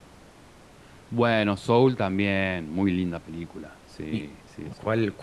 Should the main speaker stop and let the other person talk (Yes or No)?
Yes